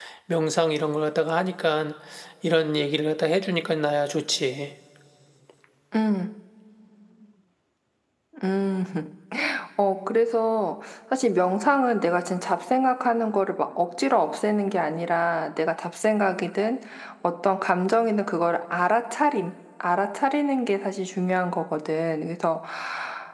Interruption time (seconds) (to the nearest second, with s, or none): none